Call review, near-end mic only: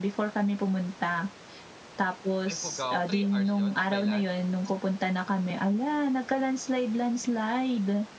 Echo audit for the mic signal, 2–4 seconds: both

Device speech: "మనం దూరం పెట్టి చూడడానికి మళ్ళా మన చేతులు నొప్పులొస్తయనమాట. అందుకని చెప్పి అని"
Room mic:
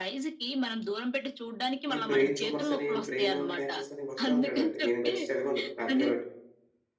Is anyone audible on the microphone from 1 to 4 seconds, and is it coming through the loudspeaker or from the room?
both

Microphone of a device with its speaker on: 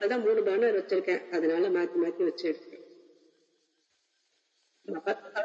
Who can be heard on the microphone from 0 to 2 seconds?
echo only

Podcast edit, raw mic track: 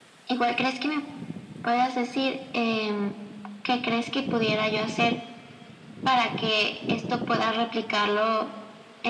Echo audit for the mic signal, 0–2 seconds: echo only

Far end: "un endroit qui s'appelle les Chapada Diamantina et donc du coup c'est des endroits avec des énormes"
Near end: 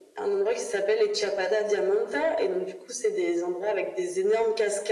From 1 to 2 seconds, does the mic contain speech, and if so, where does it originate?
echo only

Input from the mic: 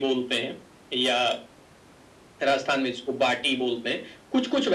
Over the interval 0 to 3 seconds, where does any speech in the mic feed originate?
echo only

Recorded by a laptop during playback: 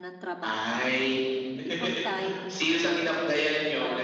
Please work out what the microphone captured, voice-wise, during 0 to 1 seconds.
both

